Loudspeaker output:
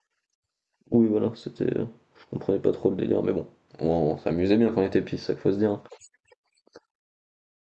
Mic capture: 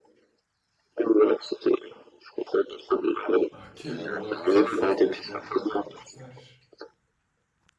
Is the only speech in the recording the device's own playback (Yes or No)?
No